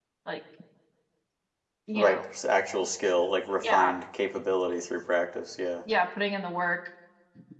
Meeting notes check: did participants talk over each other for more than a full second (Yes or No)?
No